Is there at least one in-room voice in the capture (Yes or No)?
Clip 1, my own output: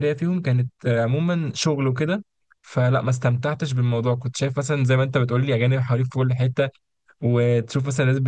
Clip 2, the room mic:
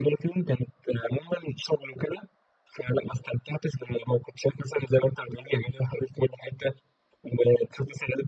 No